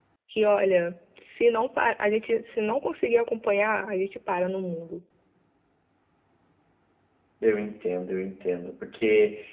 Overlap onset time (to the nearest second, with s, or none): none